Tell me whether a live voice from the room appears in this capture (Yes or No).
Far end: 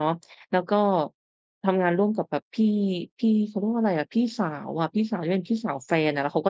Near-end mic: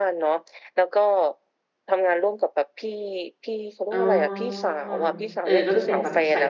Yes